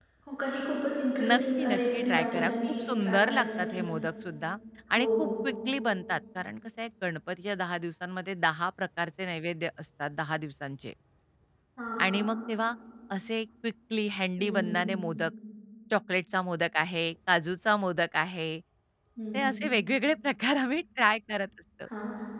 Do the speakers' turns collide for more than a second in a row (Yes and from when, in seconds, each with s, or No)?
Yes, from 1.2 s